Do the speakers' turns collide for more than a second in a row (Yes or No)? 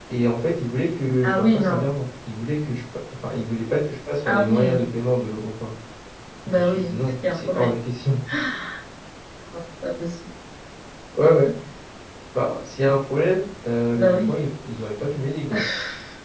Yes